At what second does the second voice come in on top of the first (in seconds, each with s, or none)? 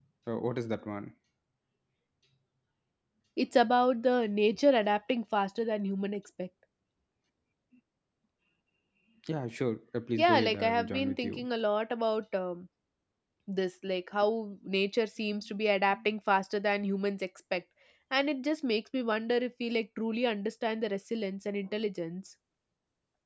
10.2 s